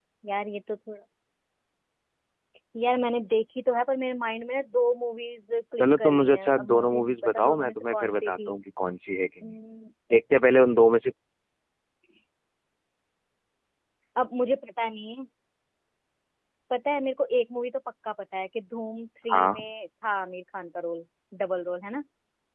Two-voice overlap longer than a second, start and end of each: 5.8-8.5

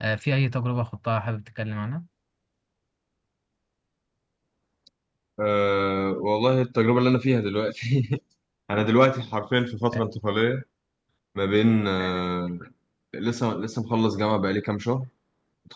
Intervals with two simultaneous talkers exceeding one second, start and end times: none

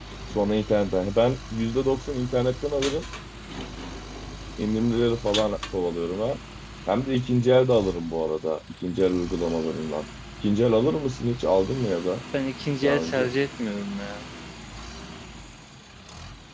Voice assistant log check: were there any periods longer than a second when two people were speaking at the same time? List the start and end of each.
none

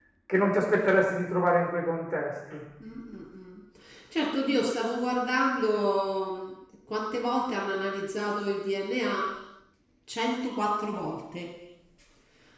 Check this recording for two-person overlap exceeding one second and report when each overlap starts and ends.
none

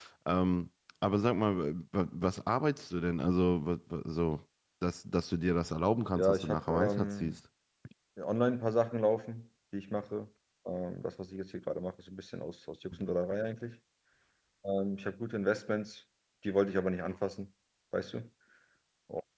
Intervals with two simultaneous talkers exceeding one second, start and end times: 6.2-7.4

